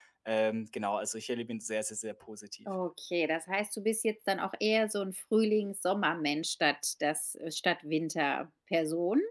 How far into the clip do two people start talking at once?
none

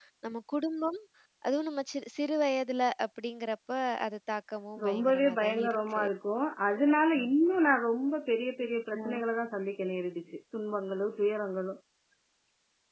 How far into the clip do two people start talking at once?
5 s

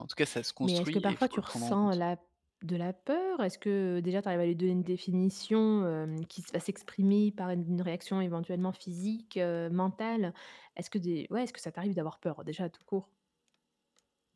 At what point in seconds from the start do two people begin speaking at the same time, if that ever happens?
1 s

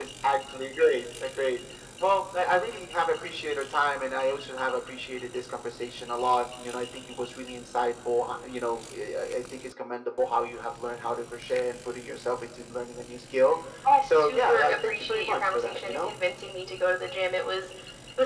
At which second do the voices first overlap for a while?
14 s

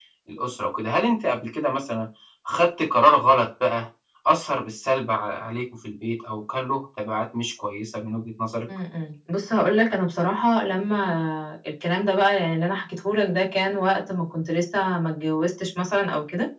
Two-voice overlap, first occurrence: none

